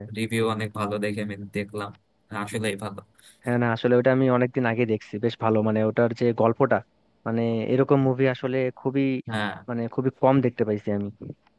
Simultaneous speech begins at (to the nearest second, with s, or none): none